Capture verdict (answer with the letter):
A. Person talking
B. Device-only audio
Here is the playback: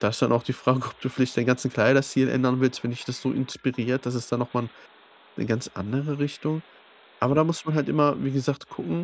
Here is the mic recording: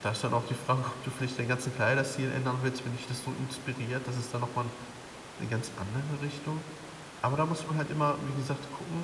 B